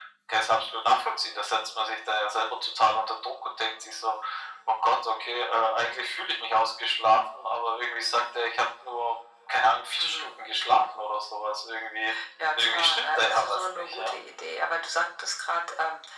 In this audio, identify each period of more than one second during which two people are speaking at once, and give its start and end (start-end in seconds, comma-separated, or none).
12.6-14.1